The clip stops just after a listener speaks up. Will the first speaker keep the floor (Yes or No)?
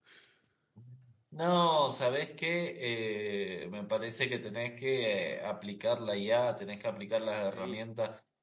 Yes